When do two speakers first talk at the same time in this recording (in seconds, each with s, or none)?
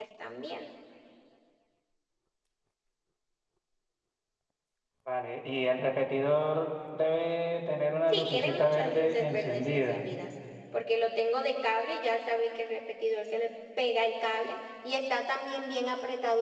8.1 s